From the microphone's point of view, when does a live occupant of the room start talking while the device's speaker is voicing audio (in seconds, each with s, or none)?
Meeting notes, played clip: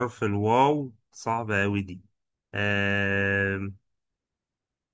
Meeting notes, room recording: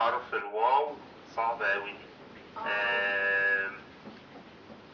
2.6 s